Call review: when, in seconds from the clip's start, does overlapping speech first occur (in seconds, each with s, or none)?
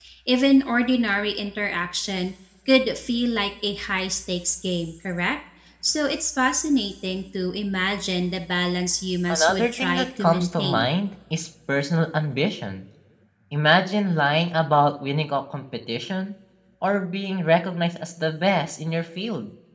9.3 s